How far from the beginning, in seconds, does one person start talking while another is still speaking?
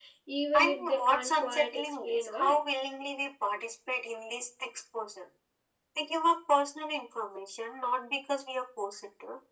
1 s

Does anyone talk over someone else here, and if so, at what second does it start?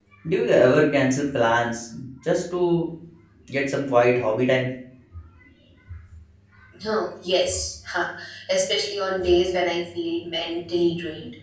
none

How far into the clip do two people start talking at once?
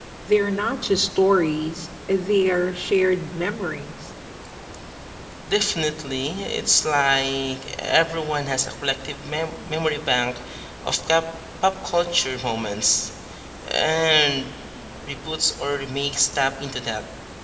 none

